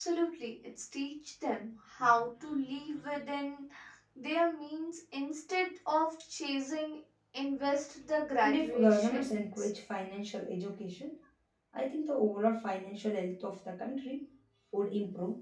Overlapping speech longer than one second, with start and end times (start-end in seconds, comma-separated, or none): 8.4-9.7